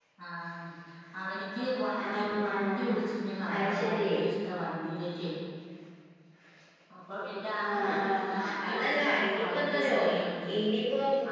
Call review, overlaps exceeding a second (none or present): present